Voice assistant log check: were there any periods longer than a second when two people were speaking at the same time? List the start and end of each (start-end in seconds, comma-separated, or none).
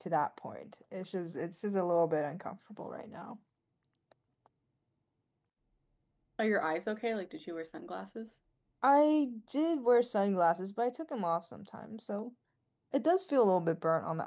none